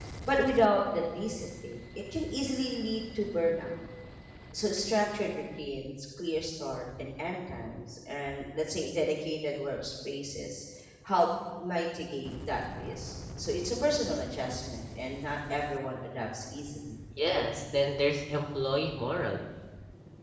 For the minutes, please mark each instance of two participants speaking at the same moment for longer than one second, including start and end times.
none

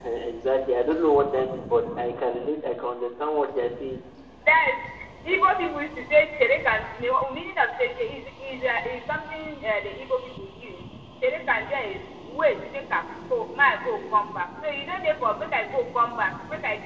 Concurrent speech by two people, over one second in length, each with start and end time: none

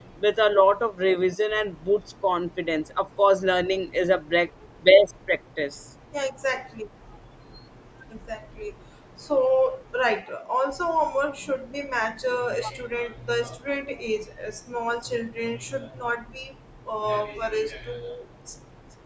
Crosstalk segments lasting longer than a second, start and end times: none

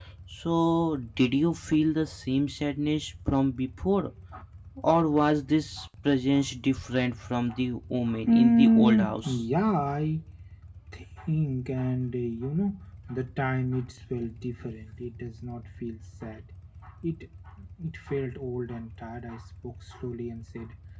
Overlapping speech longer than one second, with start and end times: 8.1-9.4

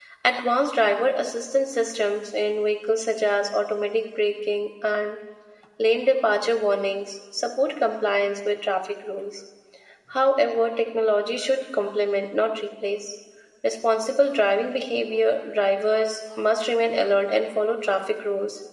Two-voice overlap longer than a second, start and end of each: none

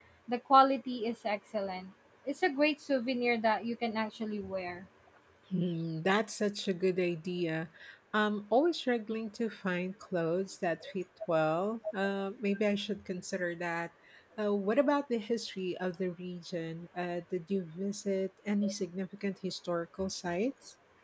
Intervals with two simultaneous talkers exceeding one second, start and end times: none

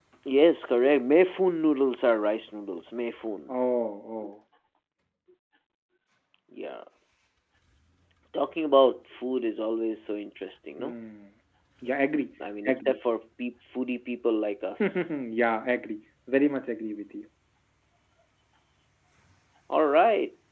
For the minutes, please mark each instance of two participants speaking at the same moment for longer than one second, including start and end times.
none

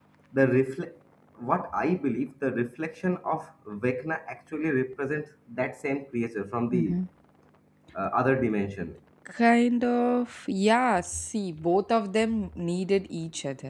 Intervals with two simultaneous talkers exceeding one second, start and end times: none

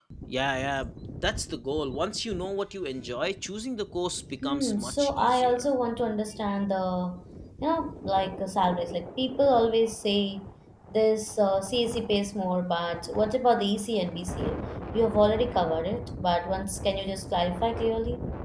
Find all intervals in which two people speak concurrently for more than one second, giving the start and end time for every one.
4.4-5.6

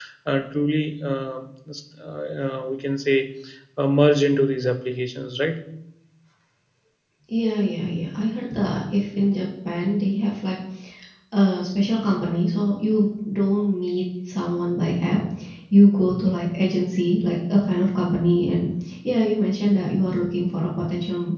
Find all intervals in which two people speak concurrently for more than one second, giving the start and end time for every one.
none

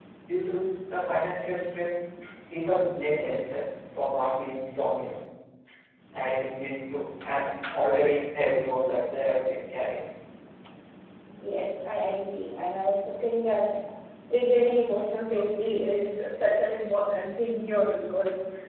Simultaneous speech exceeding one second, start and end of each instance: none

